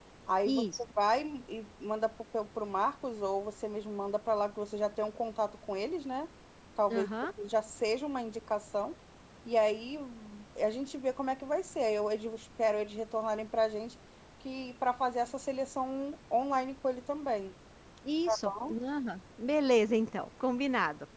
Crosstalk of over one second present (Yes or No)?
No